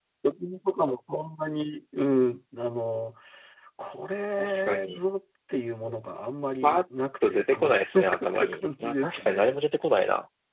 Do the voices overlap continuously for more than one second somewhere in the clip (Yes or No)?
Yes